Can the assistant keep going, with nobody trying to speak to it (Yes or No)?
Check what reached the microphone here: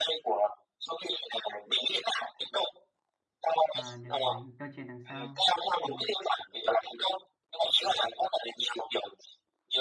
No